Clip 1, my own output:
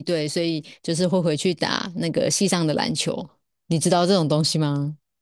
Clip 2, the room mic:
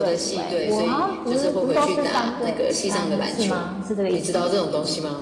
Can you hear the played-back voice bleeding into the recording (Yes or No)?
Yes